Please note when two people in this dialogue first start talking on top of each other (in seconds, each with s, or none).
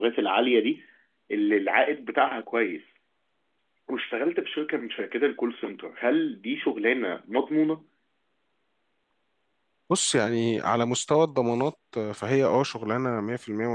none